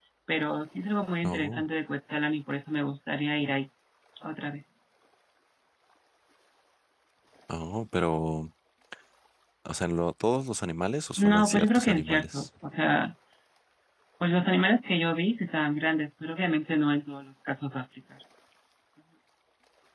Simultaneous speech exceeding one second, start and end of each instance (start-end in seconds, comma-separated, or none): 11.2-12.5